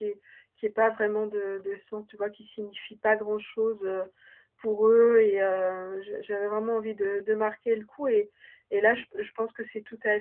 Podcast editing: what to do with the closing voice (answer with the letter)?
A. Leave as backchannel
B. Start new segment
A